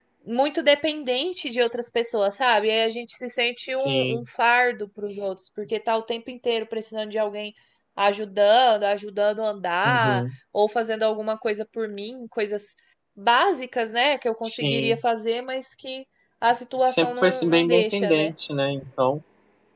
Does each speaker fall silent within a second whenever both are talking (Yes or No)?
No